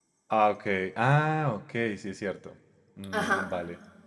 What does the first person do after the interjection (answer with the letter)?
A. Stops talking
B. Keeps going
A